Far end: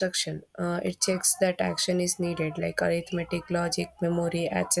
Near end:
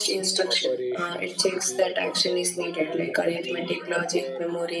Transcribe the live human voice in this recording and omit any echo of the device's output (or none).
operations to be uh, performed and the oper-